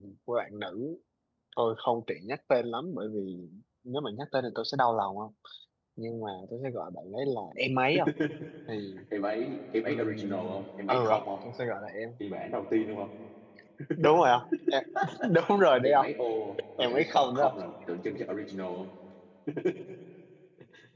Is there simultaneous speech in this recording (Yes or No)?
Yes